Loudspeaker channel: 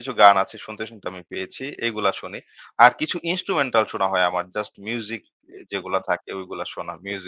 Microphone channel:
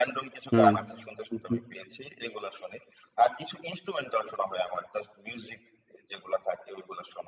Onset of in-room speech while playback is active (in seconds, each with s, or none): 0.5 s